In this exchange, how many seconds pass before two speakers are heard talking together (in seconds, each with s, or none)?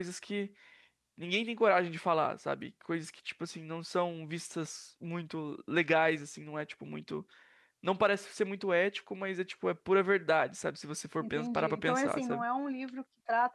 11.2 s